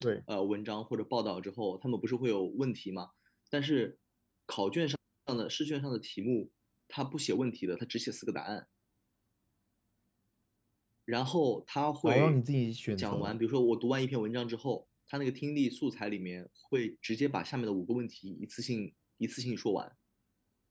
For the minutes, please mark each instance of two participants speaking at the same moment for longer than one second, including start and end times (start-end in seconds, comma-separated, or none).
none